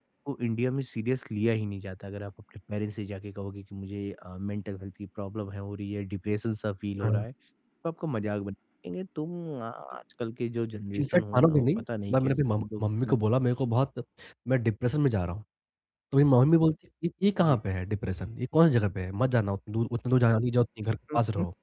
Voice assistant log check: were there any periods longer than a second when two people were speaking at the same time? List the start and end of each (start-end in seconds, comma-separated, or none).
11.0-13.2